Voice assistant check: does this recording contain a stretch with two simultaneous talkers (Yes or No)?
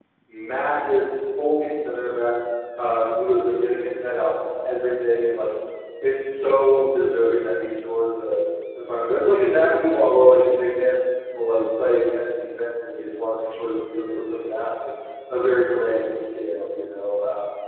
No